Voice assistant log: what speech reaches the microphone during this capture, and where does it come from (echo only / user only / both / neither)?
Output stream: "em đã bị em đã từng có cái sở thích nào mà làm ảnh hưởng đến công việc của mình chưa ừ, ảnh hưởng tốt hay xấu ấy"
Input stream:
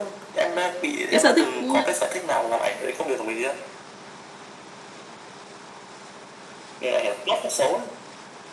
both